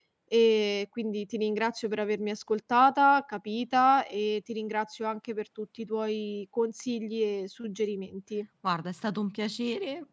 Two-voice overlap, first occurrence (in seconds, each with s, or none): none